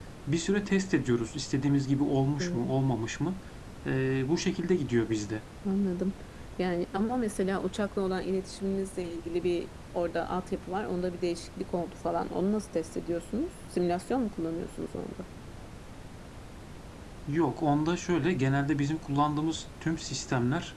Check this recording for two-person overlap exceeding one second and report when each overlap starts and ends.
none

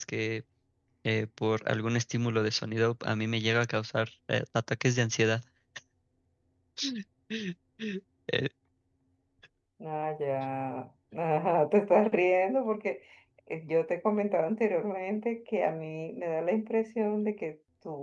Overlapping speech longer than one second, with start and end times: none

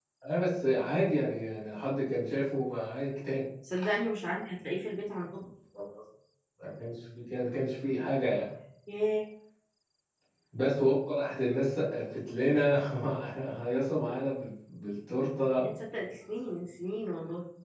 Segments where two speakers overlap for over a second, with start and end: none

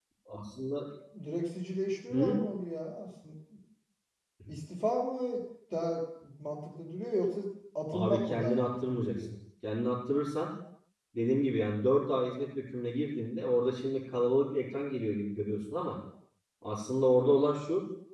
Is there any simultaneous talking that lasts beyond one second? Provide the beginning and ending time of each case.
7.9-9.3

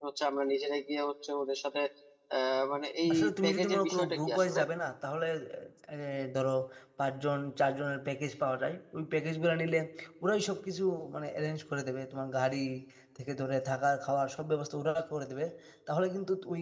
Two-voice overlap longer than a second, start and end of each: 3.1-4.6

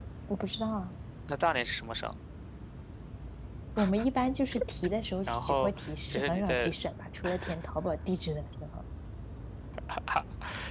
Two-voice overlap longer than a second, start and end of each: 5.3-6.7

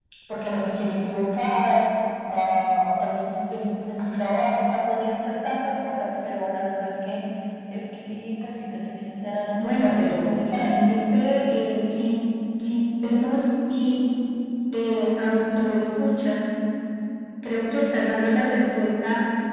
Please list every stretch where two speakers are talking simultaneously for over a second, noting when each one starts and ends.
9.5-10.8

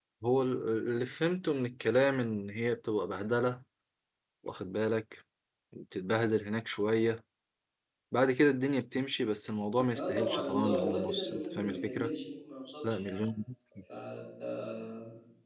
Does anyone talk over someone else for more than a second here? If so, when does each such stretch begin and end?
9.9-12.1

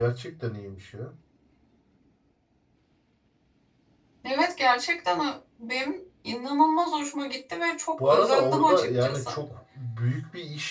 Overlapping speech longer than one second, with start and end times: 8.0-9.3

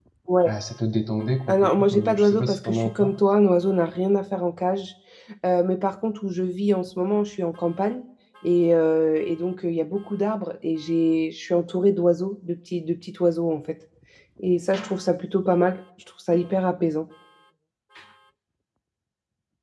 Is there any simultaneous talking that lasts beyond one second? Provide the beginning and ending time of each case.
1.5-3.1

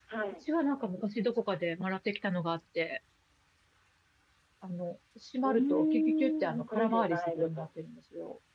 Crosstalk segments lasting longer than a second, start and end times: 5.4-7.7

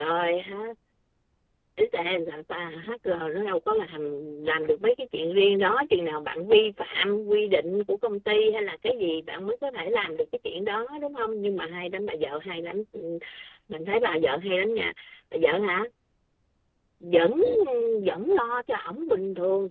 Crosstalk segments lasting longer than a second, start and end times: none

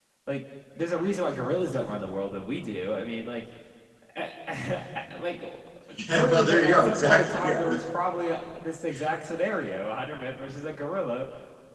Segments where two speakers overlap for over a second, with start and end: 6.1-7.6

